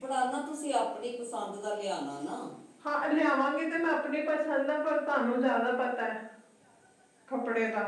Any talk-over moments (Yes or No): No